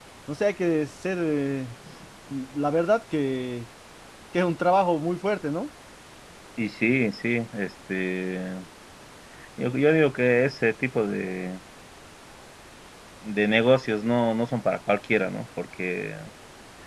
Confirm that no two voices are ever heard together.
Yes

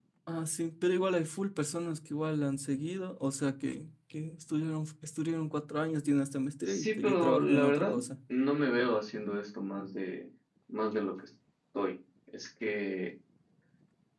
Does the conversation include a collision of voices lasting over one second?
Yes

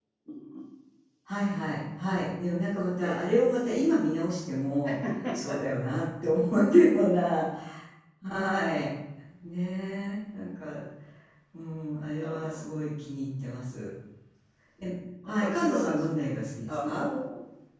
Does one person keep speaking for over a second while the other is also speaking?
Yes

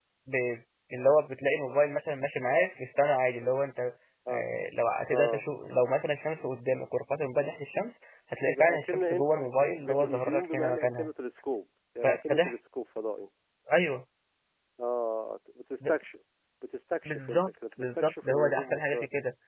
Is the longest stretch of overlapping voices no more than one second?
No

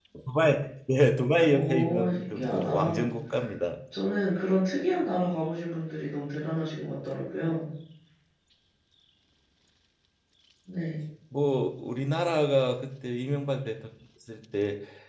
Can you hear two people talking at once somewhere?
Yes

